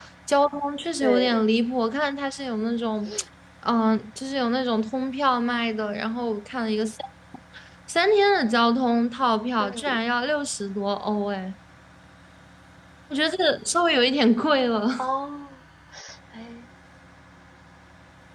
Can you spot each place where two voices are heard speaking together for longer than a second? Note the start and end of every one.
none

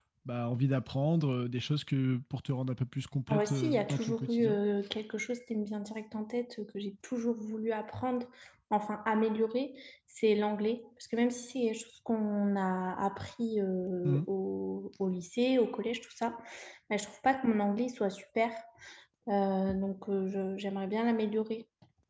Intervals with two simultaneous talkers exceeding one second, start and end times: 3.3-4.6

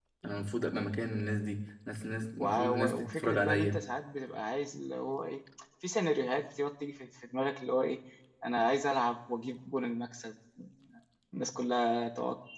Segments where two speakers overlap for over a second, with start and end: 2.4-3.8

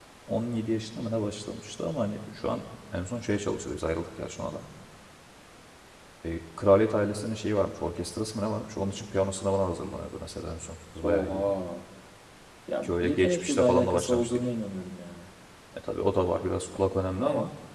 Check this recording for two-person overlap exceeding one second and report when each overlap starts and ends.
12.8-14.4

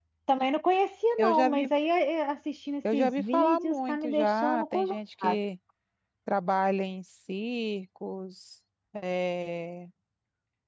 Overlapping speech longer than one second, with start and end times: 2.9-5.0

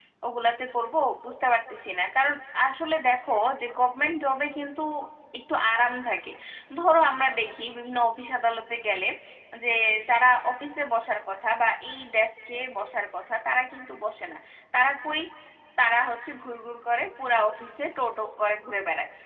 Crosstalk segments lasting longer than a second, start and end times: none

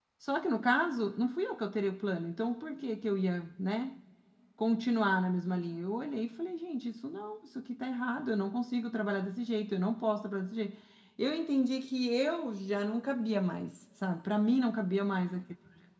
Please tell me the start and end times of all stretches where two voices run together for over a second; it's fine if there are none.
none

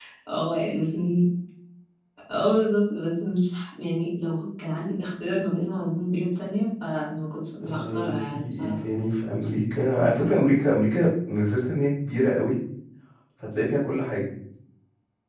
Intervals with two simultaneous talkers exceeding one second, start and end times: 7.6-8.8

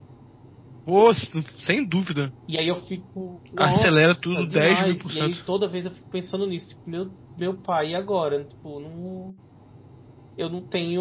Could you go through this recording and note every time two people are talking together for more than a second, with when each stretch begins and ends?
3.6-5.4

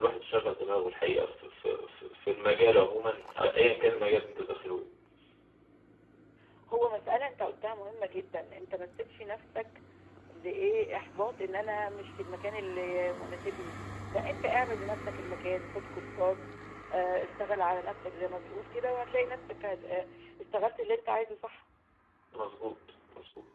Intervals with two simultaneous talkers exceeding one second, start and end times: none

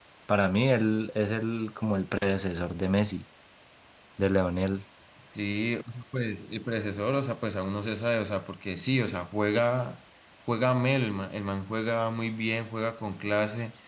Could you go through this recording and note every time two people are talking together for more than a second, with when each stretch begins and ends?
none

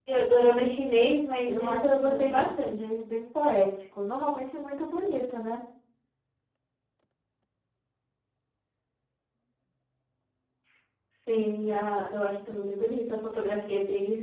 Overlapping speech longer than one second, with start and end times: 1.4-2.8

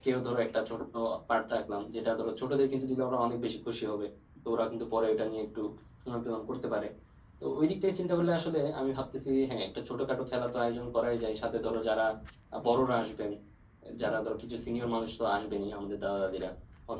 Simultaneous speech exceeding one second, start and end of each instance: none

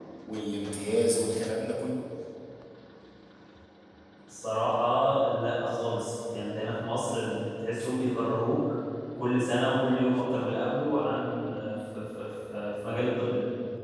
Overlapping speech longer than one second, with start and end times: none

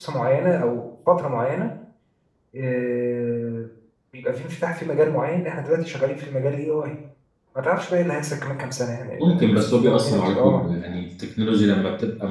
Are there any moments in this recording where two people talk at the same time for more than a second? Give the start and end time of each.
9.2-10.6

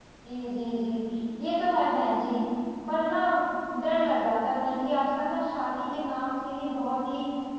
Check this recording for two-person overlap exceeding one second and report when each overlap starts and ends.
none

